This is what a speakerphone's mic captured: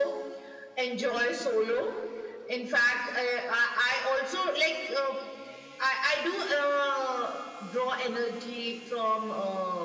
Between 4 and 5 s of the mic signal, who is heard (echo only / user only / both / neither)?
echo only